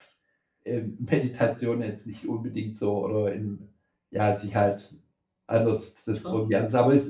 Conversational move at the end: listening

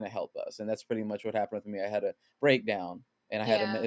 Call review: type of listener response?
listening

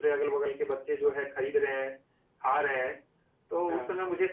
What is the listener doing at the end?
listening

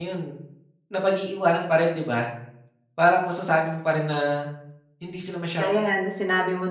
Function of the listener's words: taking over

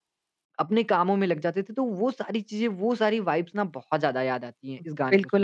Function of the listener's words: taking over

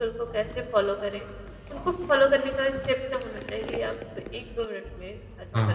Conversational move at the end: taking over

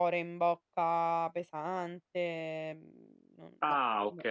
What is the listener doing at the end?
taking over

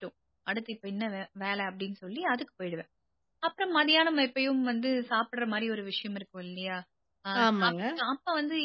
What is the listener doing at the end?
listening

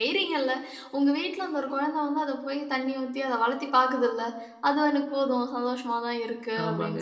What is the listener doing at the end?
taking over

